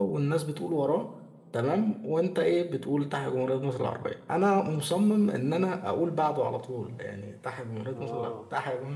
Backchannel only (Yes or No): Yes